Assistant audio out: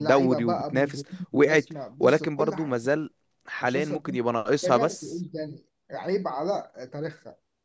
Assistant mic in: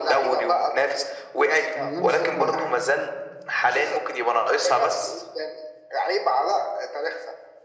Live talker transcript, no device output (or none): من غير ما افكر يا باشا